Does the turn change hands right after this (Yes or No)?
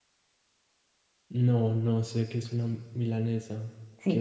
Yes